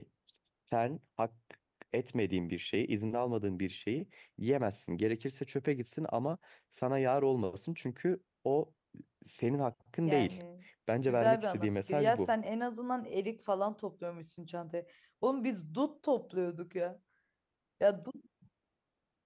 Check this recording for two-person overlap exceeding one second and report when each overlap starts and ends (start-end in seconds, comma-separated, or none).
11.1-12.3